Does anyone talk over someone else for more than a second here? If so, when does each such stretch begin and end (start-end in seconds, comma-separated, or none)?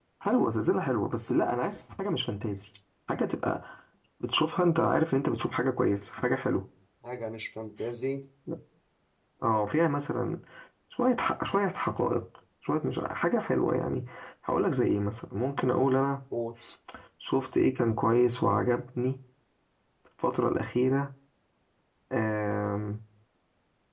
none